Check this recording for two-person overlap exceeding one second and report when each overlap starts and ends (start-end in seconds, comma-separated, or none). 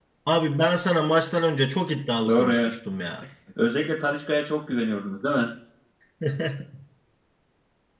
none